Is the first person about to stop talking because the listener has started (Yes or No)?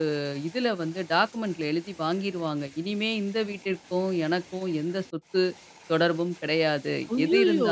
No